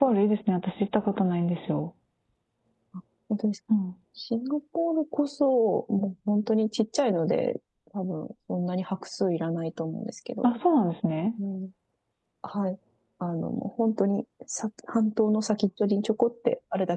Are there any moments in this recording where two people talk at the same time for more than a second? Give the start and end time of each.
none

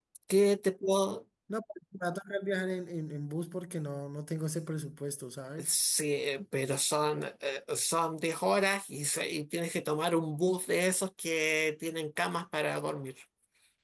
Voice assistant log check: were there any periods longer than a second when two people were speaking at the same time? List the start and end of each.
none

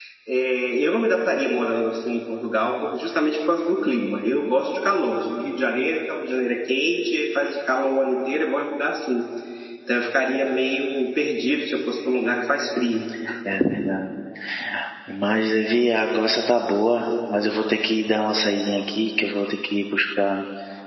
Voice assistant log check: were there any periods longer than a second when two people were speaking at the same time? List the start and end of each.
none

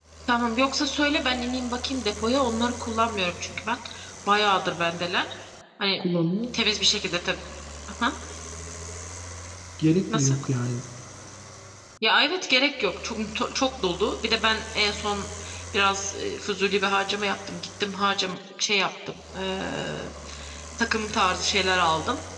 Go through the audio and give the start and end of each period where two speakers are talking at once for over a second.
none

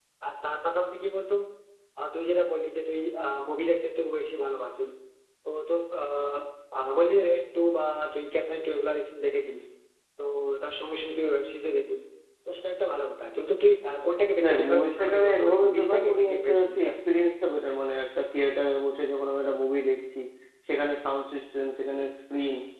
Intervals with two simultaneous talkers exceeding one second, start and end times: 14.4-16.9

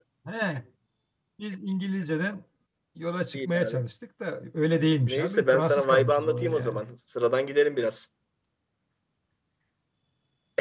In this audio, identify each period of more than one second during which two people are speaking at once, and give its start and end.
4.7-6.8

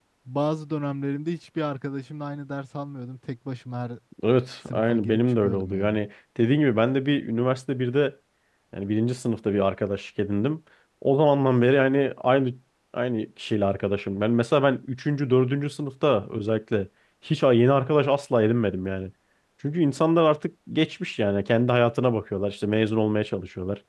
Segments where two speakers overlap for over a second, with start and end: 4.7-6.0

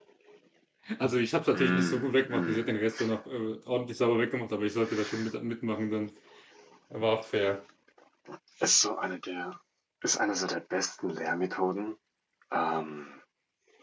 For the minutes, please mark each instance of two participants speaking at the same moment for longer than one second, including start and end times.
1.5-2.7

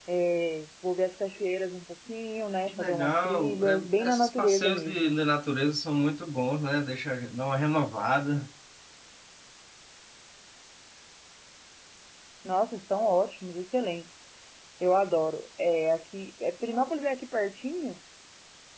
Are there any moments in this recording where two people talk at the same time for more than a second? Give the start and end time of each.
2.7-5.1

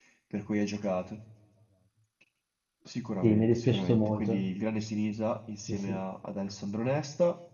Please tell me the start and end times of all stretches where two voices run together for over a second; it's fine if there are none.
3.2-4.4

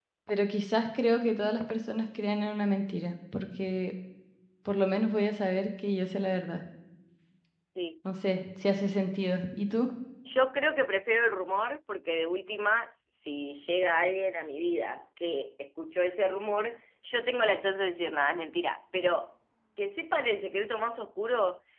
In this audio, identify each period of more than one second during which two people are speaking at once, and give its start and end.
none

